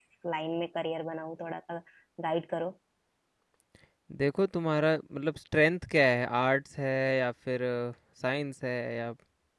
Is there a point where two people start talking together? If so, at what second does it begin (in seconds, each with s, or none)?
none